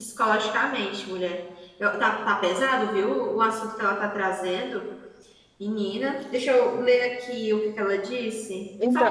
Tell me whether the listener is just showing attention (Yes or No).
No